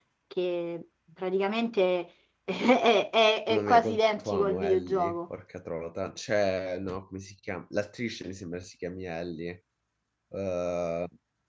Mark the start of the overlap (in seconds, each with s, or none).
3.5 s